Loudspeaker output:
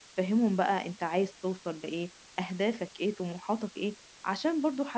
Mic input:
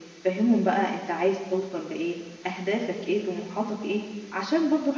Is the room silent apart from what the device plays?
Yes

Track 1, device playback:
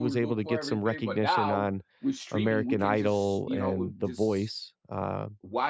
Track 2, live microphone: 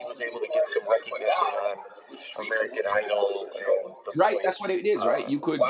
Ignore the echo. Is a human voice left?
Yes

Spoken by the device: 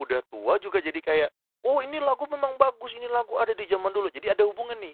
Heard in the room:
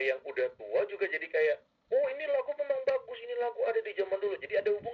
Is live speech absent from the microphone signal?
Yes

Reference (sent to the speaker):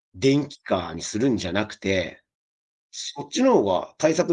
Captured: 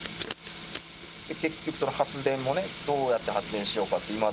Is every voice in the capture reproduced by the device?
No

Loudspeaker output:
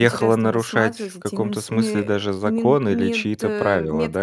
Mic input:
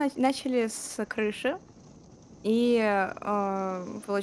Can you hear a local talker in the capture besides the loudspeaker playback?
Yes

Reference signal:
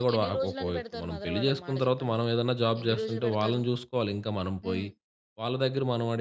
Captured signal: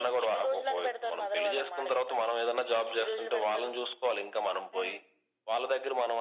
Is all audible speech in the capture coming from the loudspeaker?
Yes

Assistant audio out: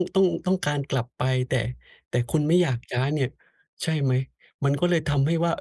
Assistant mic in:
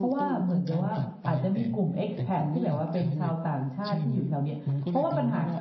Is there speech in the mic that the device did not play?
Yes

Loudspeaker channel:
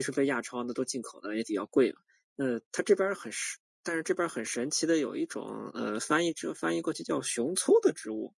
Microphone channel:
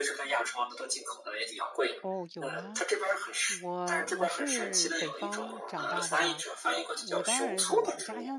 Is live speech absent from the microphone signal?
No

